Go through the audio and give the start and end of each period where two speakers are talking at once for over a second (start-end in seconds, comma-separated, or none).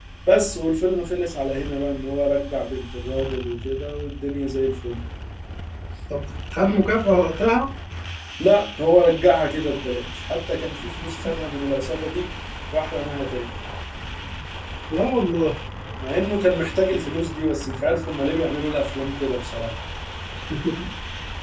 none